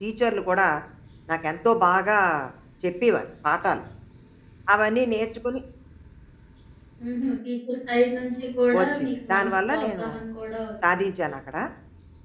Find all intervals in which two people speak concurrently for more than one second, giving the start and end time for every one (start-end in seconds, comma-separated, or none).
8.8-10.1